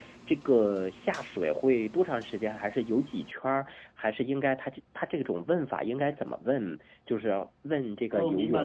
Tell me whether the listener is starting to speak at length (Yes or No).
Yes